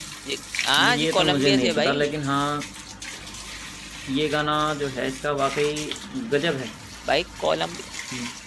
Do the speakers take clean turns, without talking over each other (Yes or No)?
No